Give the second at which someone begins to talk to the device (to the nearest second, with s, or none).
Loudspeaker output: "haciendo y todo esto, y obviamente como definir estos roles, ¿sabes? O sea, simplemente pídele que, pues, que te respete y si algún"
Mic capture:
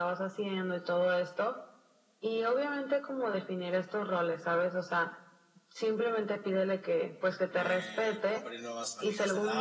8 s